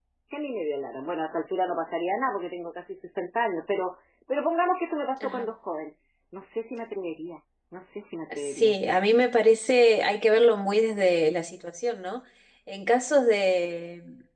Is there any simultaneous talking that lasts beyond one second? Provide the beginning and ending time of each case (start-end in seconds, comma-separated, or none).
none